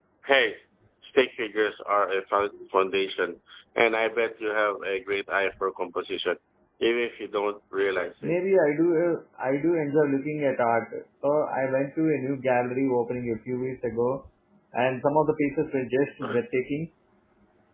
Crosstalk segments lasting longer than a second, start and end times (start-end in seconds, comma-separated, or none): none